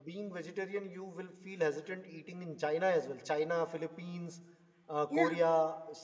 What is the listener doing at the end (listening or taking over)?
listening